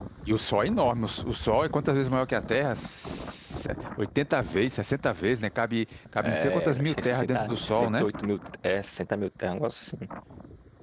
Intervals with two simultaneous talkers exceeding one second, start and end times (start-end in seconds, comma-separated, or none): 6.2-8.0